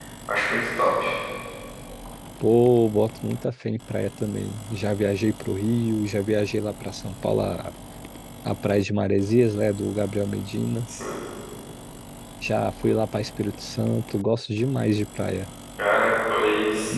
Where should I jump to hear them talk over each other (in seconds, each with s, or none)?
none